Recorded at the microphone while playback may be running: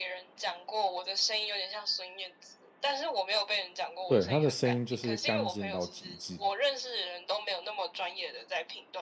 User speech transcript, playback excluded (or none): 对，她的声音就是干净到极致，